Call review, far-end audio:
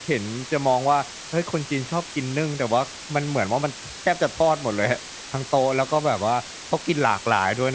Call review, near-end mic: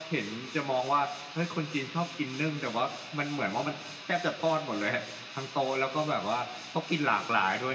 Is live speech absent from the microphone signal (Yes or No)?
Yes